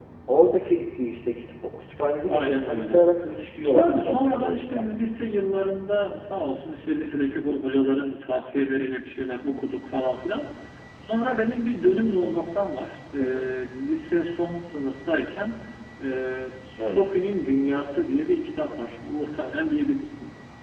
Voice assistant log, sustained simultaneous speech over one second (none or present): present